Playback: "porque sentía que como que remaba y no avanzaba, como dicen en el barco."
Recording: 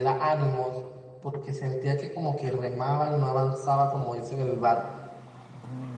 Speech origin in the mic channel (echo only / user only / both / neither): echo only